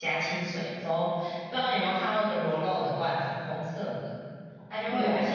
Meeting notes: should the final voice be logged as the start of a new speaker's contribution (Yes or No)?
No